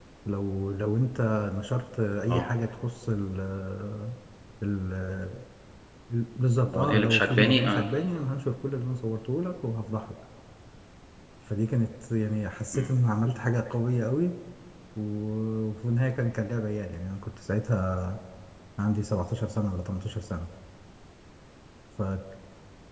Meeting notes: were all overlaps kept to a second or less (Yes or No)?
No